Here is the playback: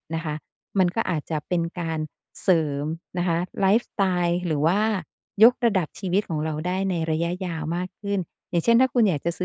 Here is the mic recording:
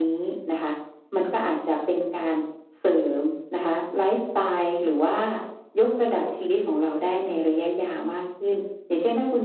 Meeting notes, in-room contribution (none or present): none